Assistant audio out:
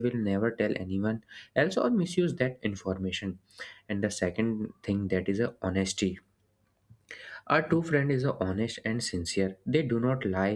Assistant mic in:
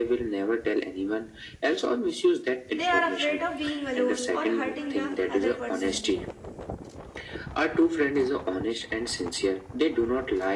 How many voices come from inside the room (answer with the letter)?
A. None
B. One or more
B